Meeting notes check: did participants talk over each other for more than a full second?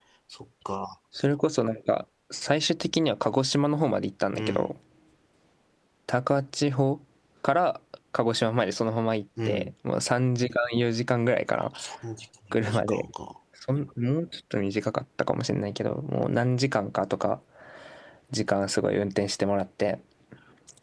No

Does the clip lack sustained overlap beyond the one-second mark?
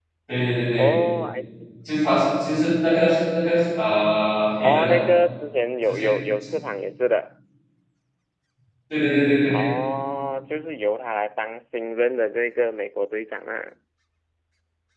Yes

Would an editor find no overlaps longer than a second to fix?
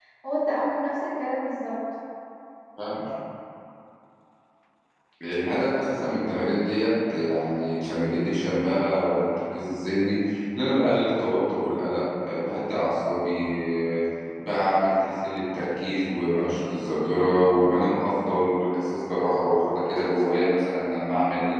Yes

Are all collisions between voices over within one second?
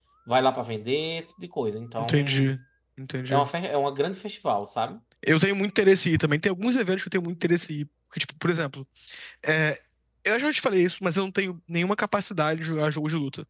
Yes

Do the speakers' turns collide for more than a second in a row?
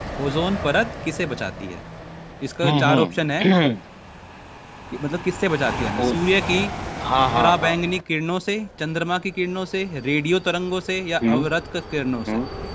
No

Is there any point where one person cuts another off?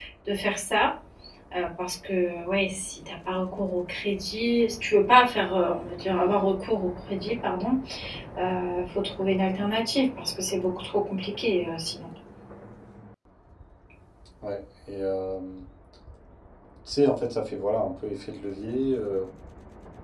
No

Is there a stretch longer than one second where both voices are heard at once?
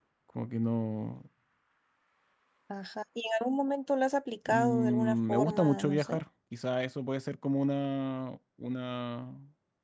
Yes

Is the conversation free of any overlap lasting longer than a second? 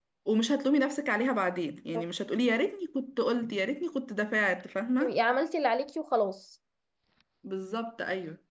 Yes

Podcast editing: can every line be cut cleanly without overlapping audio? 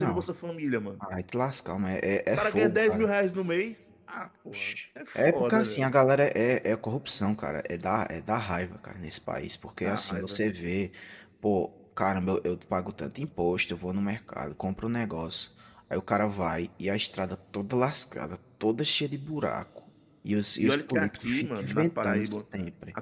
No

